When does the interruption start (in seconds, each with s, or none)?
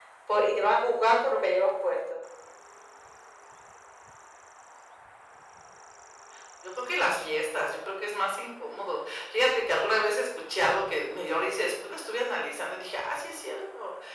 none